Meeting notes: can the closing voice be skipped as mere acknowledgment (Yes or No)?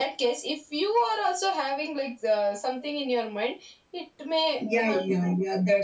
No